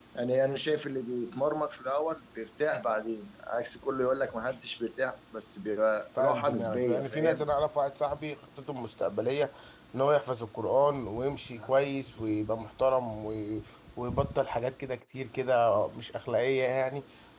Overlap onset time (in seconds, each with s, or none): 6.2 s